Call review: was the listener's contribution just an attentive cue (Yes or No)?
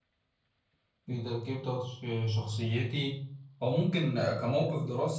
Yes